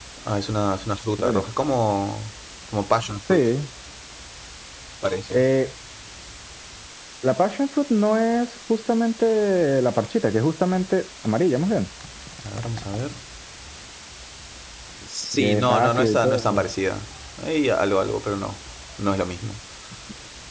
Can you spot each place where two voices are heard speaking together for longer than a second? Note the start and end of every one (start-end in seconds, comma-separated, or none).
15.4-16.6